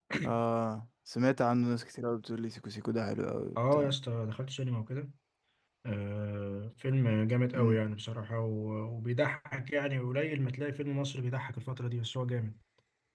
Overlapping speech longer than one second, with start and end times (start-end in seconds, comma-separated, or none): none